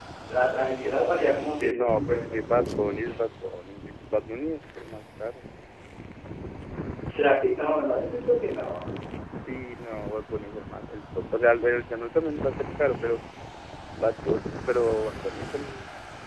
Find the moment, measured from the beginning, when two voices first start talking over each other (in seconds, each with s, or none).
0.6 s